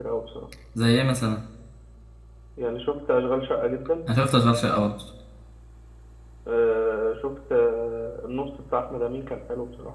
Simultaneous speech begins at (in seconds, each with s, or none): none